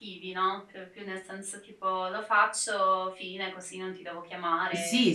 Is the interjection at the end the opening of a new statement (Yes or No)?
Yes